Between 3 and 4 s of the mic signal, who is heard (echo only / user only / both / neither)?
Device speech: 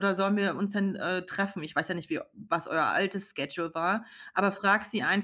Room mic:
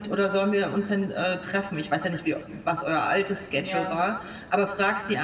both